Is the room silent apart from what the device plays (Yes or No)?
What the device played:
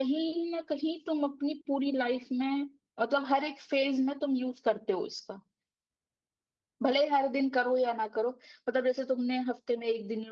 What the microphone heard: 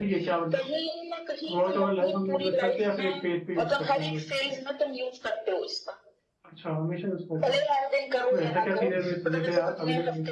No